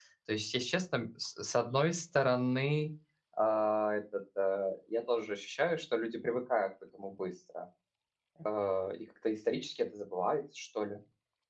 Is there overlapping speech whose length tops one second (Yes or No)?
No